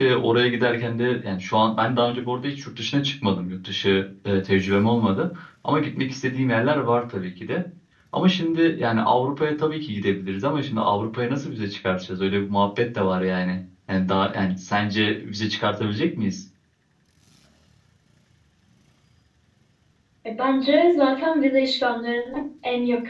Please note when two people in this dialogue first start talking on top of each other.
none

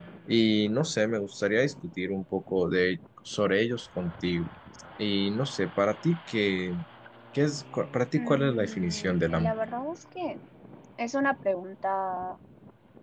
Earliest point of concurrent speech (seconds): 8.2 s

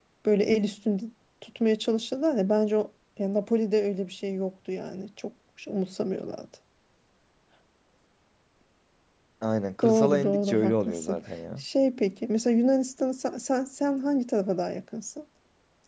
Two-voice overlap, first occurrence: 9.8 s

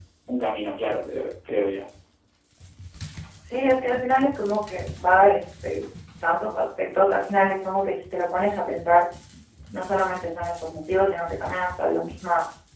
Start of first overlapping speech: none

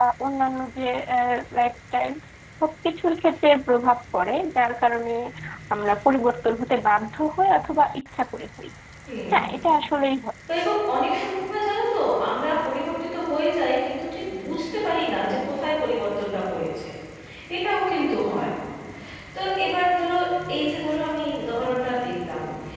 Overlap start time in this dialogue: none

